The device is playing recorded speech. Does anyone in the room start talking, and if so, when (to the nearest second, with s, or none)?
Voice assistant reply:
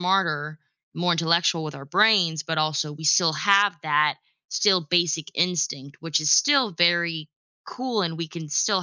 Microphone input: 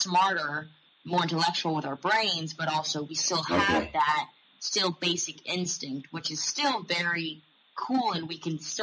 3 s